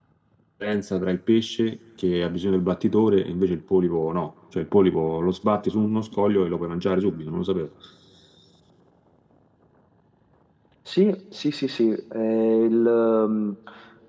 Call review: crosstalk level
none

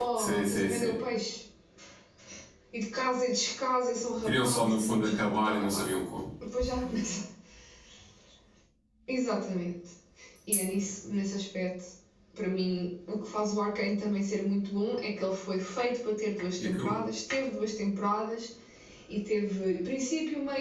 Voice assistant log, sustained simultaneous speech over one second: present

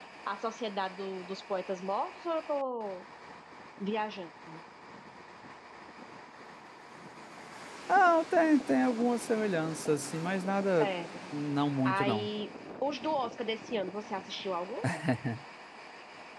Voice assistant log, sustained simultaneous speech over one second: none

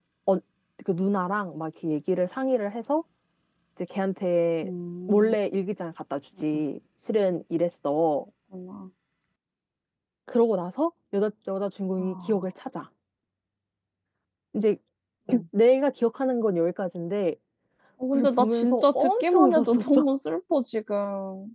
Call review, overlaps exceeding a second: present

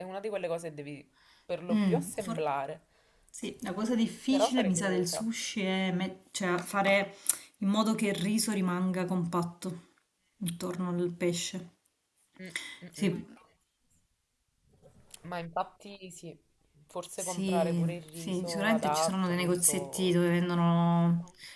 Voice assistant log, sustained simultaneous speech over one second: present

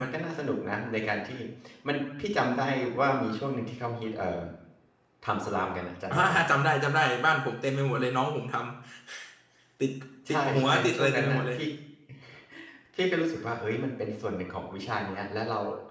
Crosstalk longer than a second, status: present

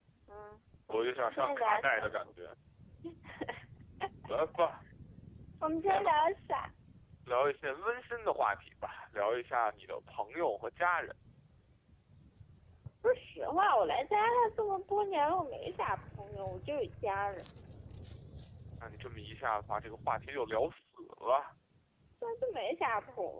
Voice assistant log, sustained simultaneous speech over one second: present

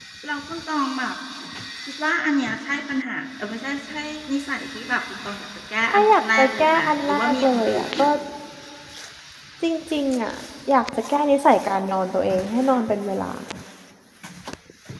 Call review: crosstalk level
present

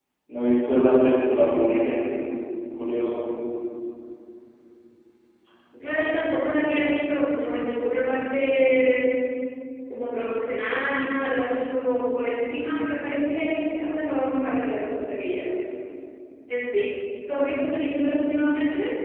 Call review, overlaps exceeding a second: none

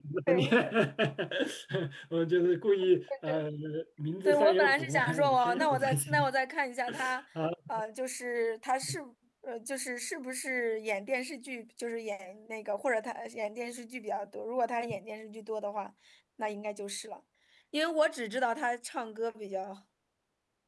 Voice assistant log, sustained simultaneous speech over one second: present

